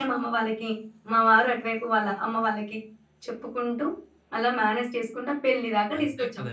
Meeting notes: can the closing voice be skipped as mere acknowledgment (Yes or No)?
No